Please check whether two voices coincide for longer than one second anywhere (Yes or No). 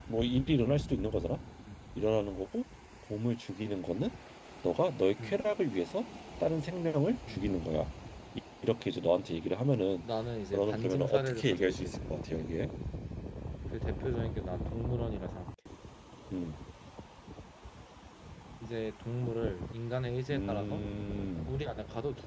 Yes